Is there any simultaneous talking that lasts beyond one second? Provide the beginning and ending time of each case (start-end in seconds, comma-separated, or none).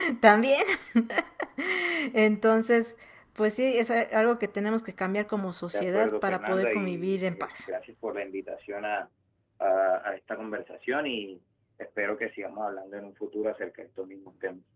5.7-7.5